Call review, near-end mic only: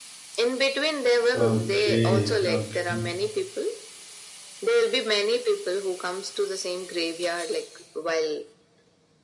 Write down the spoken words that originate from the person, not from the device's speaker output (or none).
Okay. Okay.